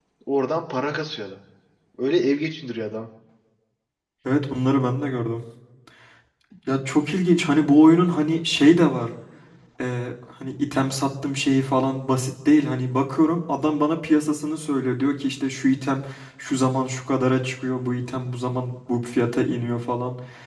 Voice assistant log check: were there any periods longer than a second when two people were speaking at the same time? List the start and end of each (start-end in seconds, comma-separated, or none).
none